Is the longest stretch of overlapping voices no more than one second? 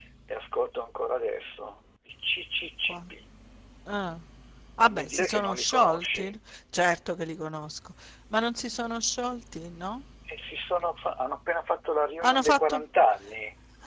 No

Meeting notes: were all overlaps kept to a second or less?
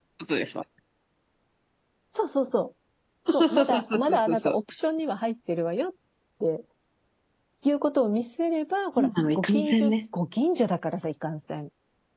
No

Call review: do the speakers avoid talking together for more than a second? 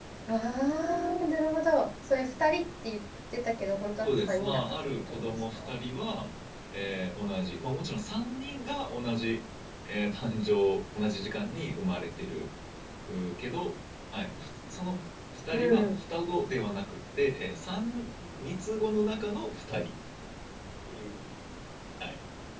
No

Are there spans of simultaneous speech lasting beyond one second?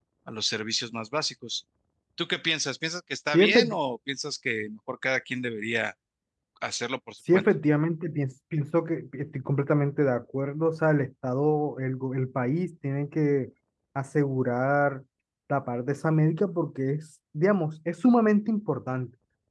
No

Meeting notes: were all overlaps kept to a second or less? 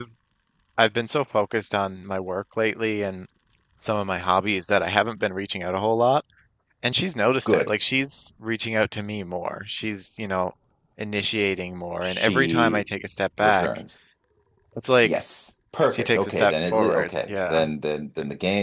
No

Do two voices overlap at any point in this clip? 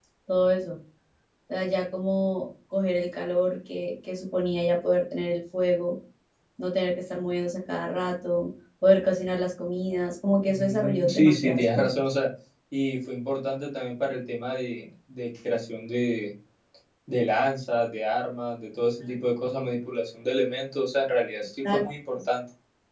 Yes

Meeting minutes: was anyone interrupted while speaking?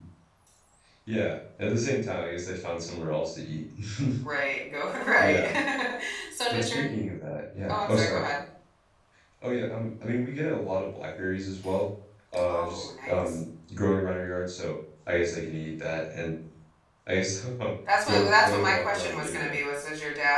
Yes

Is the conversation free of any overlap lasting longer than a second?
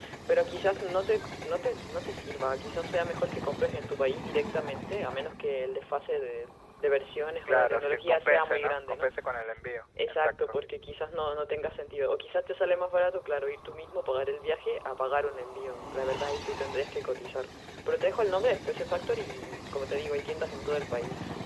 No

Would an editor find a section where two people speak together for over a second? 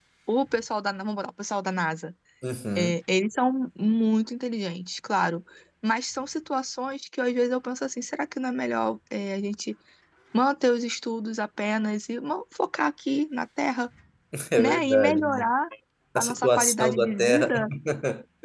Yes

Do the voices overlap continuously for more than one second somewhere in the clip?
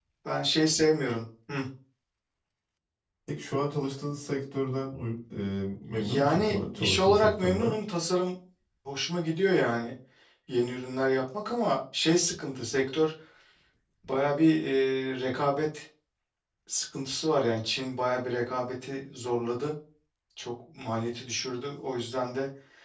Yes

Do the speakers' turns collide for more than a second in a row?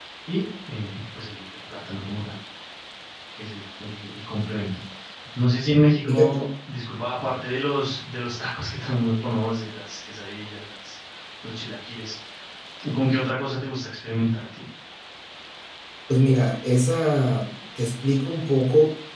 No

